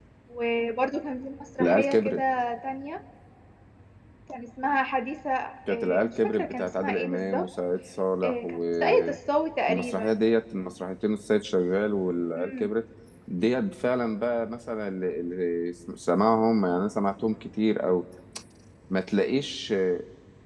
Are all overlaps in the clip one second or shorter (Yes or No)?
No